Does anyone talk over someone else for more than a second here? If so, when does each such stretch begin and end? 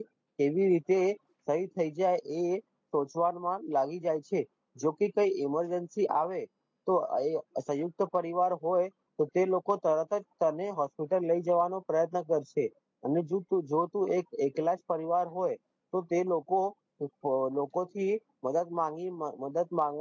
none

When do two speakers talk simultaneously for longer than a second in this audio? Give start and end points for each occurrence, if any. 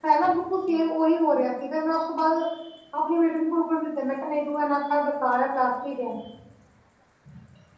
none

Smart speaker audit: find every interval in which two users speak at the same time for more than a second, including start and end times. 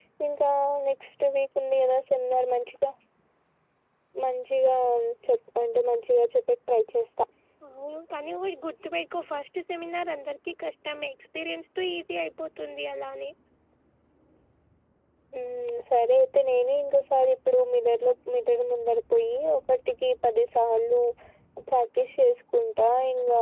none

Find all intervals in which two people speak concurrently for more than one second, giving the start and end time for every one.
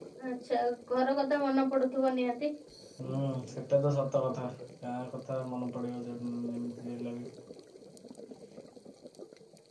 none

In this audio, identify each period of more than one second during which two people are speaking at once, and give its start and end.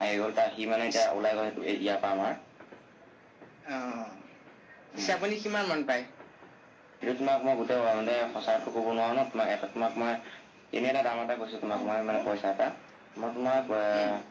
none

